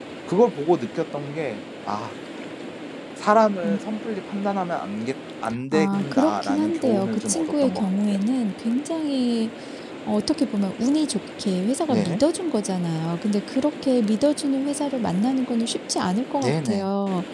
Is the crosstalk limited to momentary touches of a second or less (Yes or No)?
No